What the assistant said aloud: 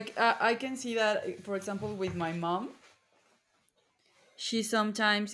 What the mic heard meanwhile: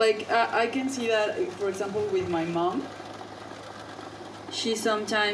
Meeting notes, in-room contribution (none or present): none